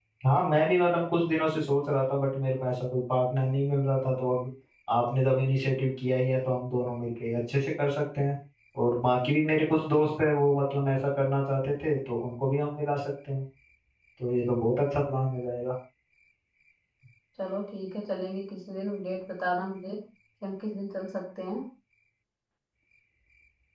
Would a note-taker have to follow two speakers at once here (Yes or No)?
No